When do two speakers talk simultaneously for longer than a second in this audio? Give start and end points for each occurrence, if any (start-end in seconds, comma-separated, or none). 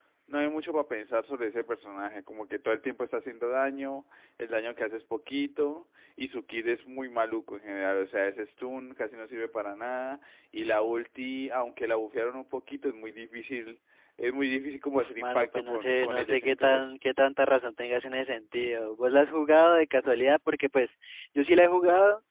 14.9-16.9